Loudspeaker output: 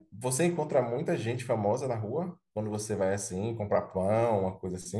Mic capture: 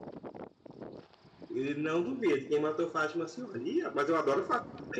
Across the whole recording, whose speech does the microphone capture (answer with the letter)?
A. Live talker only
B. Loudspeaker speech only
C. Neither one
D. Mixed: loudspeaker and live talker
A